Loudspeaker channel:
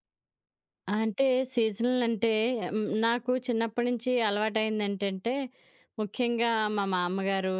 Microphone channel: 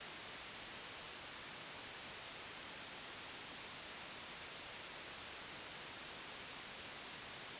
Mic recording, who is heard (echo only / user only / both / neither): neither